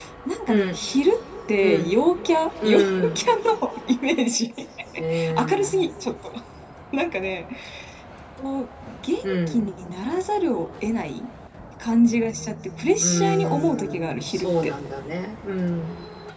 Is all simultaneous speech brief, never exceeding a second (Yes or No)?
No